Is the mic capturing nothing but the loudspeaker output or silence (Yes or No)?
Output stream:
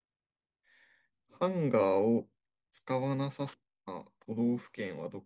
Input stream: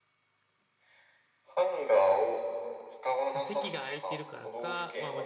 No